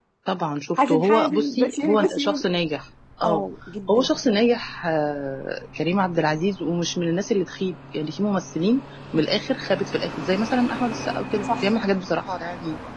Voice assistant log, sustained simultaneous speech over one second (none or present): present